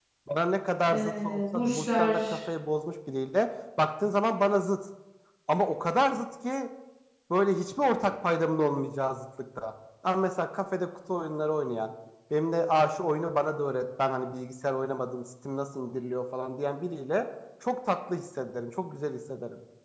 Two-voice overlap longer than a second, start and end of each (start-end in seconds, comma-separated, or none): 0.9-2.4